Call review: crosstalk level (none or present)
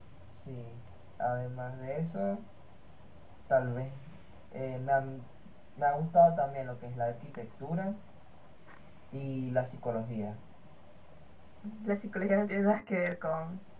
none